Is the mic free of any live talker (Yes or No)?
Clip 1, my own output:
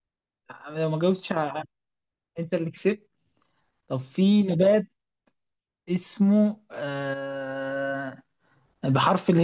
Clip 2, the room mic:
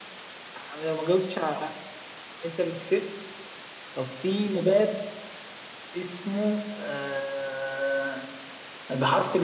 Yes